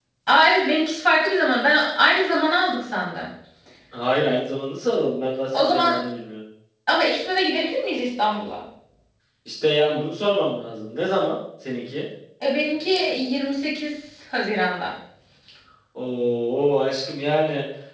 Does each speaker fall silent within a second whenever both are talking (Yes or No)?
Yes